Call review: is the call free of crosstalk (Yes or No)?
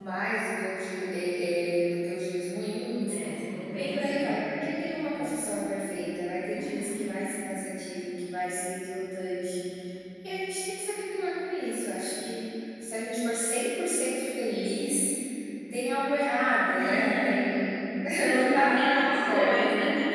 No